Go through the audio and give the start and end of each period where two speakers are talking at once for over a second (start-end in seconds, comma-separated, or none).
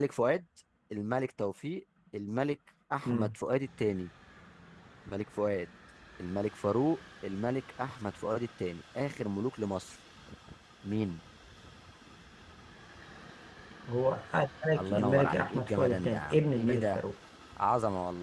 14.8-17.0